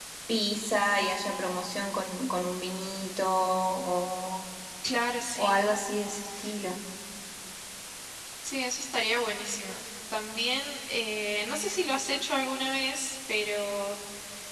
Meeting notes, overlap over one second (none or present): none